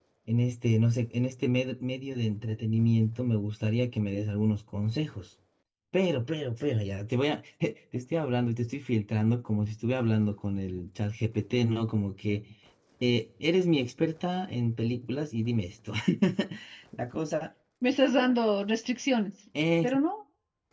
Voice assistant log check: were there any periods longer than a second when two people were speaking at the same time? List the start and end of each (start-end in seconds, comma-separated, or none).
none